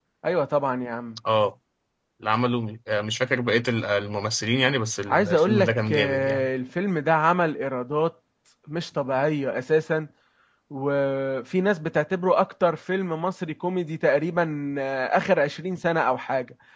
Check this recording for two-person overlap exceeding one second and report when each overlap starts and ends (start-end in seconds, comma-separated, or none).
5.1-6.5